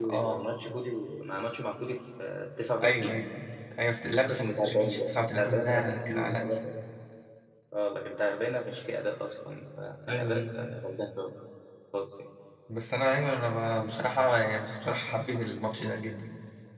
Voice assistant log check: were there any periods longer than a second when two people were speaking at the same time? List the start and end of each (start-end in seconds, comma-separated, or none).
4.2-6.5